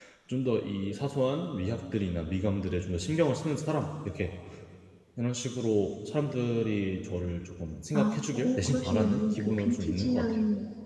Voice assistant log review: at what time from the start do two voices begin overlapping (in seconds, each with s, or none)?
7.9 s